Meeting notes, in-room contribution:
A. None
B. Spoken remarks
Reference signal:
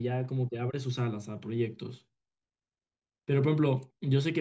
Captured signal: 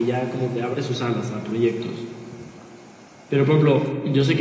A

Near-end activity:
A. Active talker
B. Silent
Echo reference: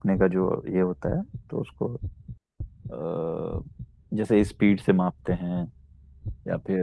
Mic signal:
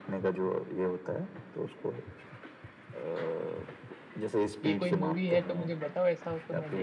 A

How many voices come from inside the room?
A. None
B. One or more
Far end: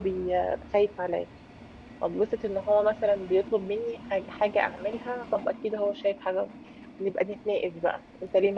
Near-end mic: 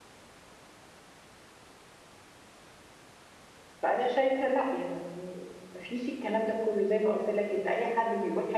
B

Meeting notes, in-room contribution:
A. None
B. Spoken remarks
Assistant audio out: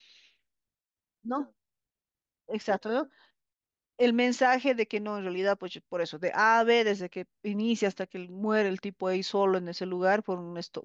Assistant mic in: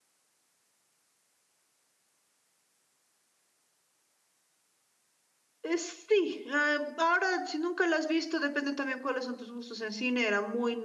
B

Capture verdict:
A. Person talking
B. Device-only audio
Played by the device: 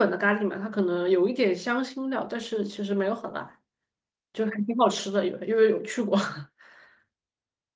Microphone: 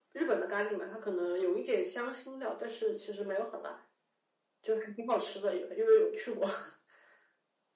B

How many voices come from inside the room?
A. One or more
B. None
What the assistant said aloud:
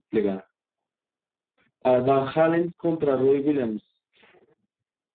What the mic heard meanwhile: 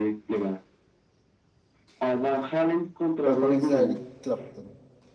A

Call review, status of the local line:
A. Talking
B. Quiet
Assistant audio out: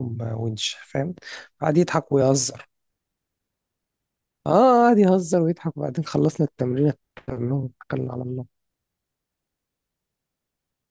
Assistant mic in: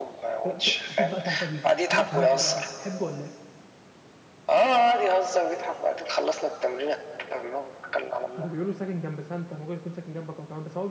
A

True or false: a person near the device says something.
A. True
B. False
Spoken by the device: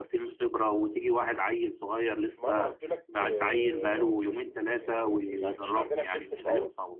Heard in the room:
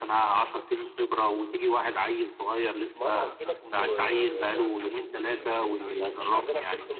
A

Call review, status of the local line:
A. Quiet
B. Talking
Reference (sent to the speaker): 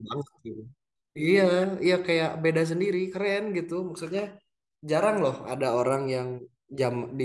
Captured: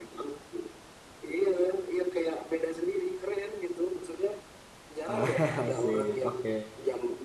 B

